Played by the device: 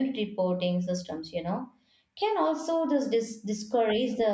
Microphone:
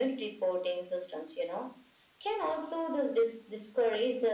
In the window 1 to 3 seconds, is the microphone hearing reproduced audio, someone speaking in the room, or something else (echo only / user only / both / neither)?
echo only